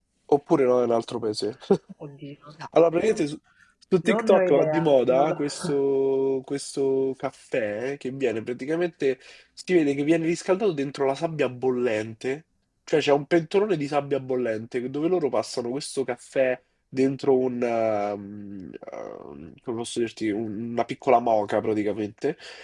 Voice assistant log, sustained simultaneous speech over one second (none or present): present